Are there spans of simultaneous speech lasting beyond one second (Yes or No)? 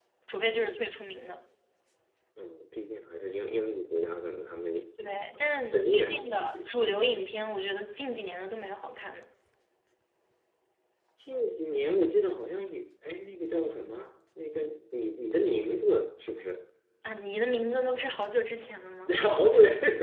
Yes